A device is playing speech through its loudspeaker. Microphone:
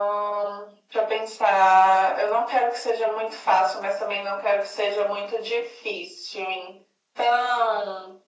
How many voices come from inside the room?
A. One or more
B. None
B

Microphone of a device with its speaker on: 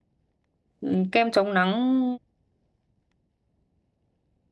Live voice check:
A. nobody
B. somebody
B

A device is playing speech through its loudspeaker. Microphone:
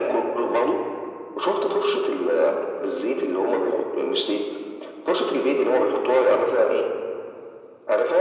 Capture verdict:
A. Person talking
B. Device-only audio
B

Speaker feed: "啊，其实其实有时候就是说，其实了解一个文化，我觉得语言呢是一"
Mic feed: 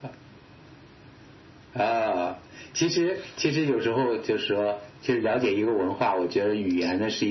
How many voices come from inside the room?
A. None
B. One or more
A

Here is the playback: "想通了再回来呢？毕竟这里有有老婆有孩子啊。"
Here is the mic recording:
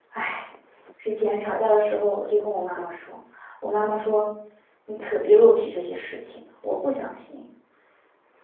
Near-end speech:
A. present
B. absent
A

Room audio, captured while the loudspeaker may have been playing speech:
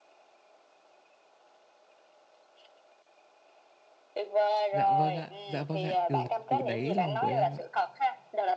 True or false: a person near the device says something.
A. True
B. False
A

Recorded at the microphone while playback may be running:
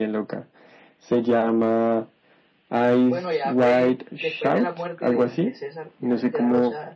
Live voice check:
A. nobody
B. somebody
B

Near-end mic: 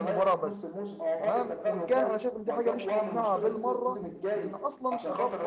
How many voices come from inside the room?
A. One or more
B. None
A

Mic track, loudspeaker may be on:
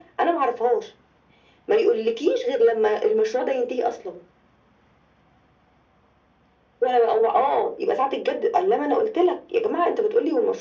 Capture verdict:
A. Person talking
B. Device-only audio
B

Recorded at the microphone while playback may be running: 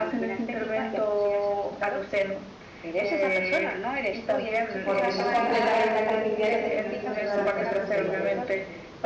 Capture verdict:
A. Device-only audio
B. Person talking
B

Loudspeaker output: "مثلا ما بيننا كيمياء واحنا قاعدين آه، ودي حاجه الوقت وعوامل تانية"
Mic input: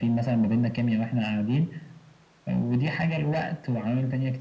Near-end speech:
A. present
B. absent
B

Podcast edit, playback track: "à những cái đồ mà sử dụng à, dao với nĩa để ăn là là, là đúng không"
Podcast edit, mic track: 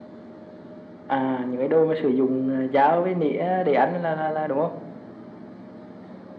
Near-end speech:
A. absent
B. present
A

